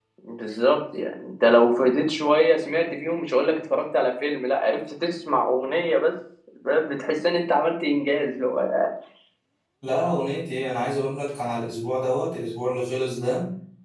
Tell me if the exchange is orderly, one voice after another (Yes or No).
Yes